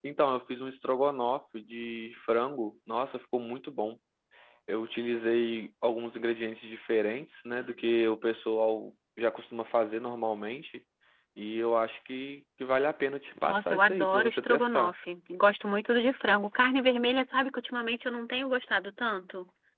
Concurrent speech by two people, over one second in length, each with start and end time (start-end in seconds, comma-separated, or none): 13.4-14.9